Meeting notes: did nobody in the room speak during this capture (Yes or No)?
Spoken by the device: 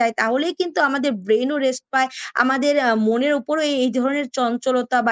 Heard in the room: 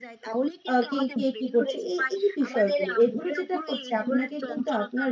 No